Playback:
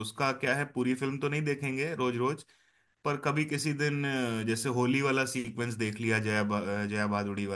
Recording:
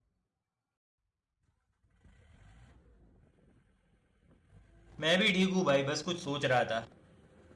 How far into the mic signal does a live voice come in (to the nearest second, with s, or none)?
5 s